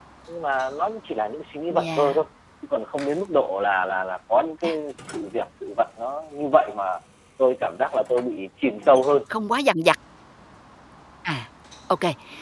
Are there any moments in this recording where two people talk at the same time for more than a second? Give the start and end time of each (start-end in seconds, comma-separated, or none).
none